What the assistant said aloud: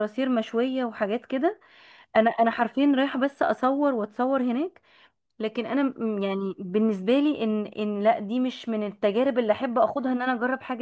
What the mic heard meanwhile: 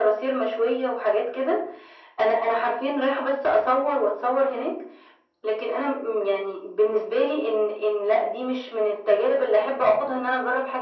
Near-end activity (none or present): none